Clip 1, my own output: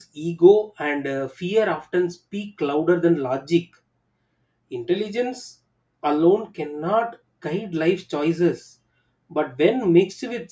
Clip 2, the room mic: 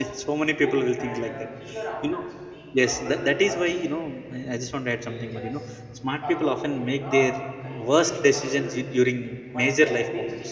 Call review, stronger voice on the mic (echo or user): user